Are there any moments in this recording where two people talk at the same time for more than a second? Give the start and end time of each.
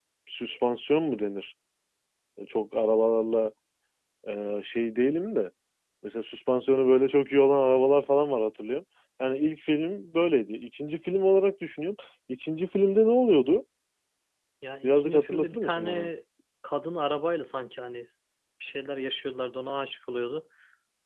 14.8-16.1

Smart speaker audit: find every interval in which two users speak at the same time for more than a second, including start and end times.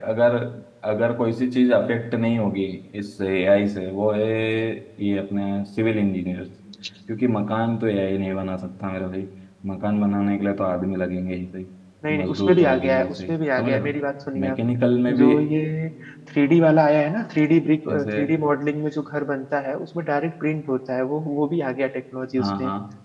12.2-13.9

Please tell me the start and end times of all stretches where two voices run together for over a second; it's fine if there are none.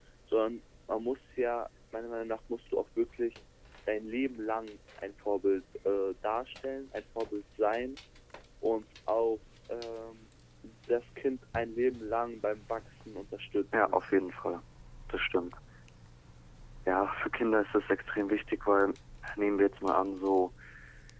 none

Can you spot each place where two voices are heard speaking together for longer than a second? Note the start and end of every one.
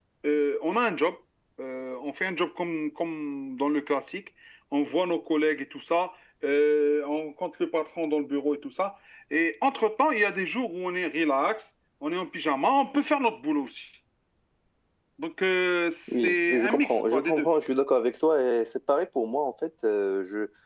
16.1-17.5

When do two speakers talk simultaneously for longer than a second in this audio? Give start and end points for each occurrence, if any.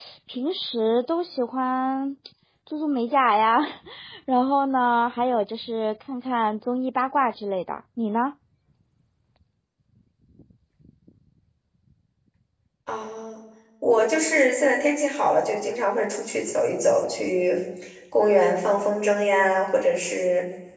none

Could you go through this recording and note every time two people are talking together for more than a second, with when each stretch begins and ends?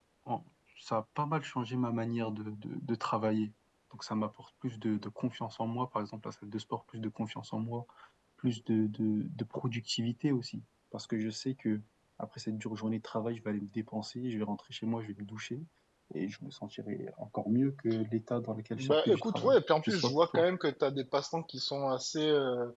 18.8-20.5

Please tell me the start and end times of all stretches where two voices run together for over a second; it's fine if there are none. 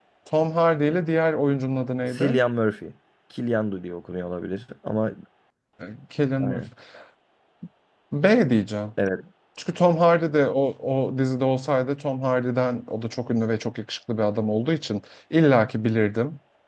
none

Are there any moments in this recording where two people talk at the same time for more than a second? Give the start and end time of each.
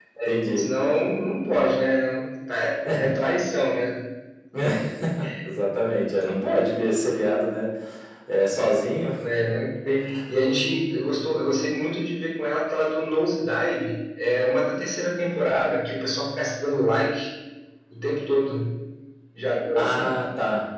none

